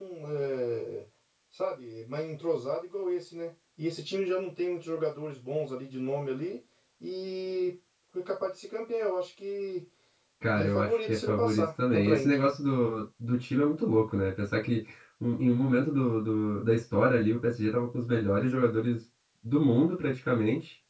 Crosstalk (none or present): present